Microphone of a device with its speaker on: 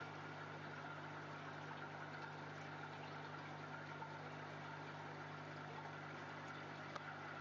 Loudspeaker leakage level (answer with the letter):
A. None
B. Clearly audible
A